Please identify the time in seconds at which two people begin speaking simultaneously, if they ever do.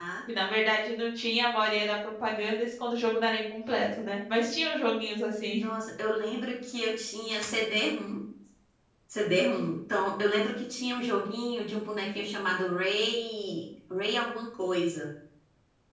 none

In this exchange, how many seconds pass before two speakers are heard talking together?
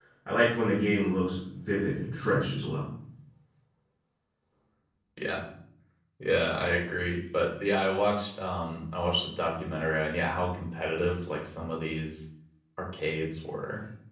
none

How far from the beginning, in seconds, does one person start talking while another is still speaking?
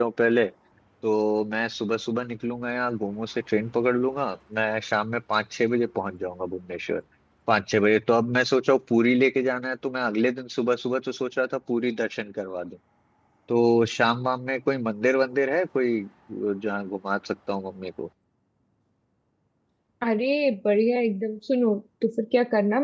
none

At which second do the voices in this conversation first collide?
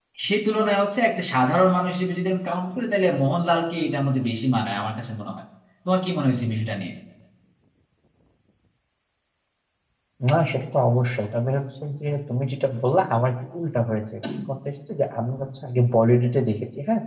none

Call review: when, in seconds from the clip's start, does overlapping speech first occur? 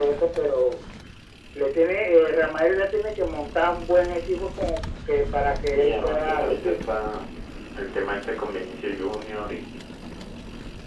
6 s

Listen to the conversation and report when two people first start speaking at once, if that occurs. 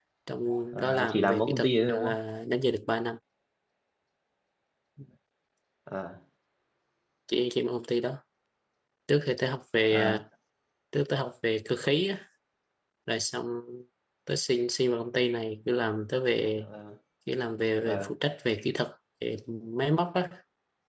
1 s

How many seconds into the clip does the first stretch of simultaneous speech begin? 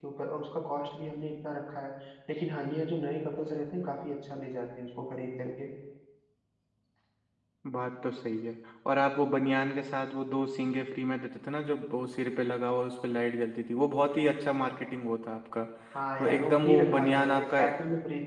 16 s

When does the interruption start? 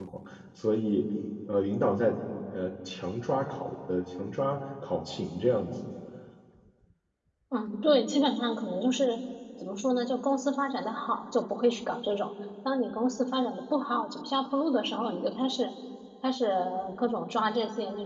none

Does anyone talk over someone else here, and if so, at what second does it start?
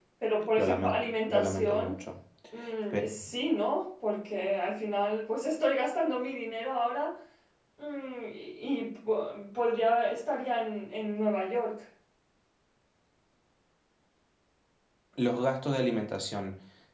1 s

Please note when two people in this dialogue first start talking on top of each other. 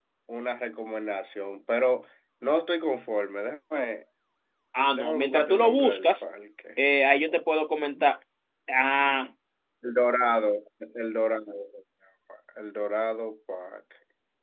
5 s

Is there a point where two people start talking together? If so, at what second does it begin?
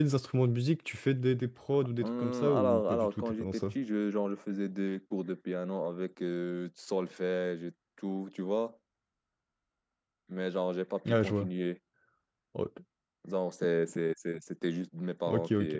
2 s

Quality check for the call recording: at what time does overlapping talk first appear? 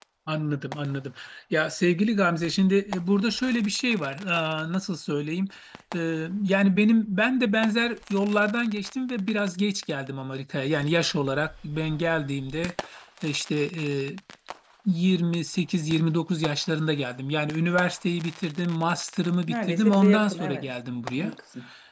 19 s

